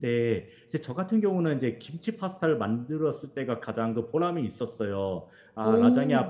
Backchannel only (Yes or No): Yes